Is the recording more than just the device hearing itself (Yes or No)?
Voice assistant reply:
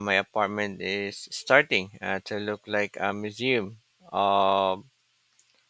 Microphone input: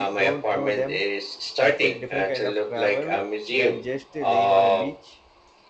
Yes